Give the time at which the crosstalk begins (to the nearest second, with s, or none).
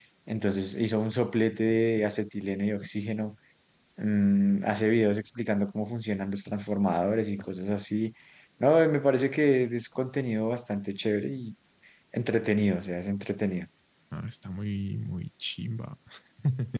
none